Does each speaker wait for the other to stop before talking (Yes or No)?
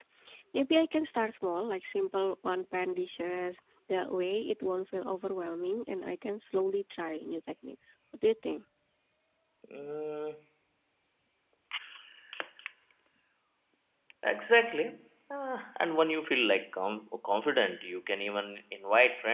Yes